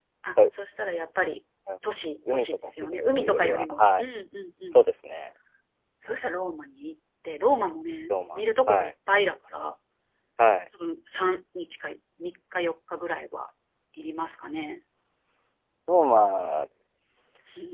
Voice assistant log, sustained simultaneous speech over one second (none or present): present